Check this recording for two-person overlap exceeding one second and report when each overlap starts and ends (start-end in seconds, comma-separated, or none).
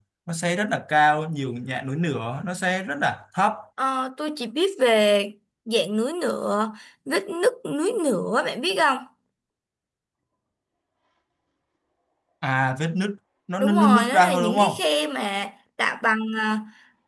13.6-14.8